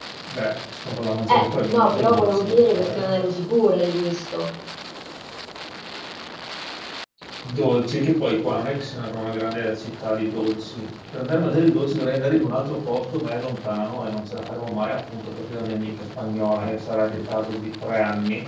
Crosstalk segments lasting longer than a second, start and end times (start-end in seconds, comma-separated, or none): 1.3-3.1